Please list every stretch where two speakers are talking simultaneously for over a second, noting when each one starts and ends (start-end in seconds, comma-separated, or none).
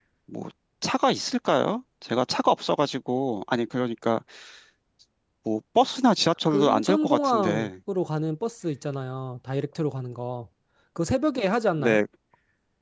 6.5-7.7